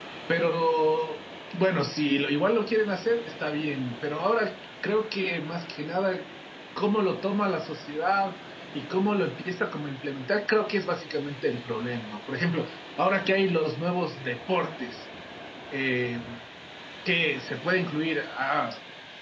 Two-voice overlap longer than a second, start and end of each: none

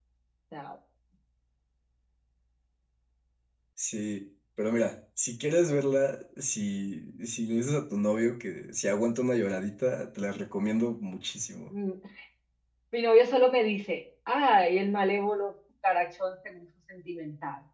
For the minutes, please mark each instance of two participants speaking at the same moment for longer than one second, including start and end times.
none

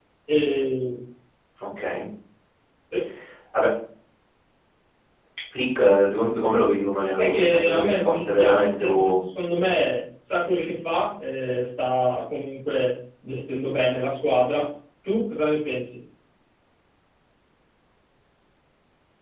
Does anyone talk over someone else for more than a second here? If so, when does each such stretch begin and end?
7.1-9.2

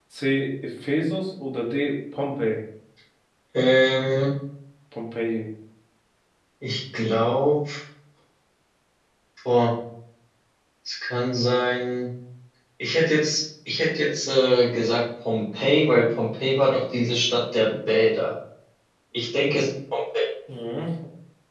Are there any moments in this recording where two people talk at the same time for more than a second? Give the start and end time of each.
none

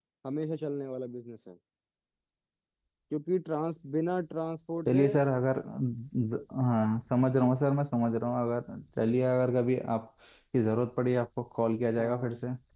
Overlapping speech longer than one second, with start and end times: none

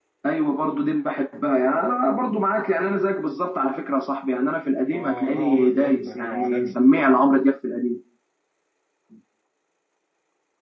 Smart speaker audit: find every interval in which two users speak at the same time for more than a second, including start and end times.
4.9-6.8

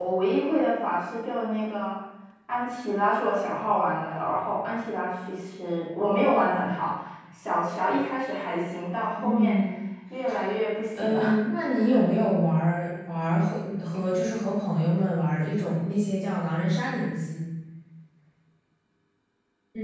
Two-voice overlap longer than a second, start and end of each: none

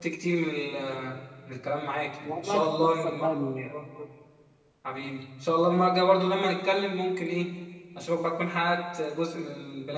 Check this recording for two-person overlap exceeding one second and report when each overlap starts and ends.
2.2-3.7

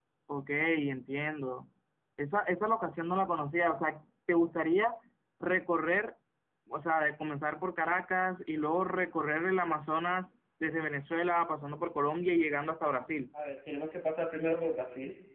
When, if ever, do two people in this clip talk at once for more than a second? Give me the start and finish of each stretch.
none

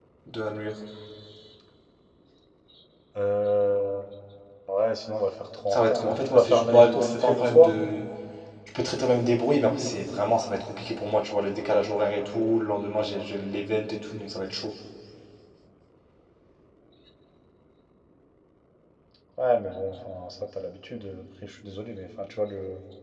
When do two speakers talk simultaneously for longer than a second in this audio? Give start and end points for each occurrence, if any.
5.7-7.7

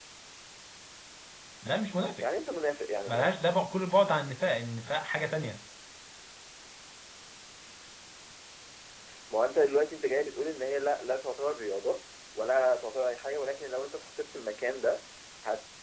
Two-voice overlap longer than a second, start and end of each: none

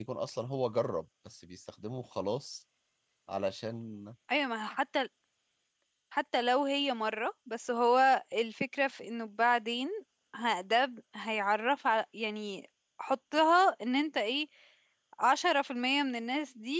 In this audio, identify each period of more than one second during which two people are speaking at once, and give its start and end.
none

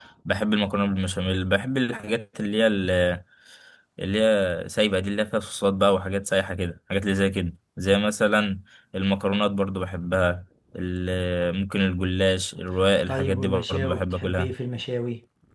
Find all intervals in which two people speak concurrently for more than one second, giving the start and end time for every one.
13.1-14.5

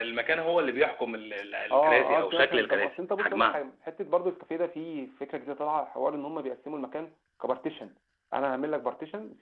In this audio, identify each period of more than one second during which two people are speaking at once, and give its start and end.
1.7-3.6

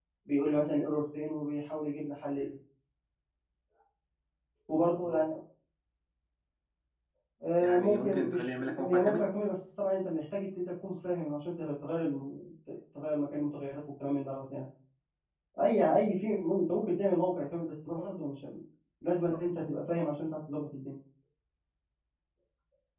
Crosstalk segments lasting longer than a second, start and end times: 7.6-9.2

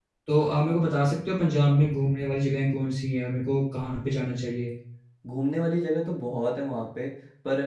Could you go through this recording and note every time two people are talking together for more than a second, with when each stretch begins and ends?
none

